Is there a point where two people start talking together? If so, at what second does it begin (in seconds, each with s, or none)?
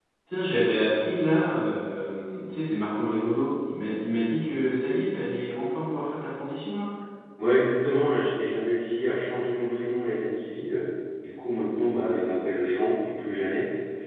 none